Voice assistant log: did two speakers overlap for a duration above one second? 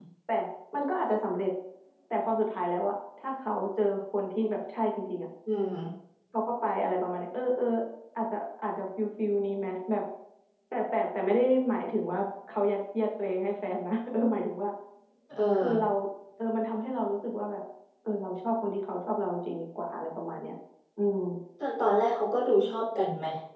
No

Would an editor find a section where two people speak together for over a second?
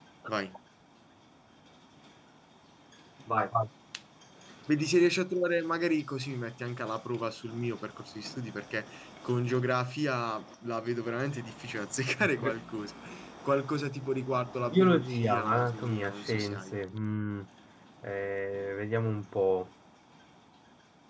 Yes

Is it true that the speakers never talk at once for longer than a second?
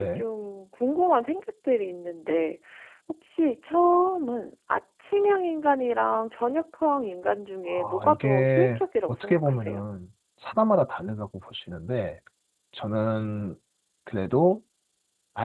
No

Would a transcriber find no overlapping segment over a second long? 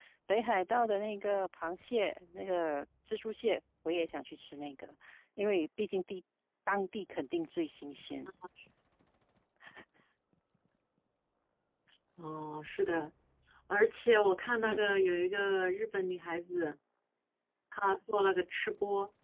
Yes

